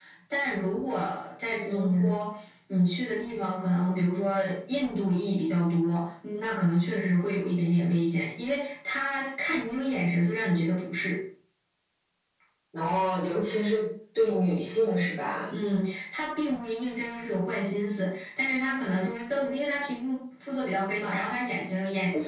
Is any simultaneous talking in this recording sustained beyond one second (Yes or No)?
No